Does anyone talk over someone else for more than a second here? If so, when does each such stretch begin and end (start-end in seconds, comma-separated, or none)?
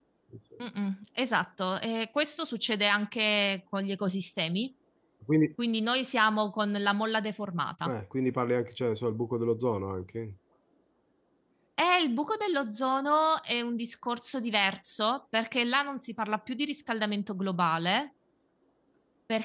none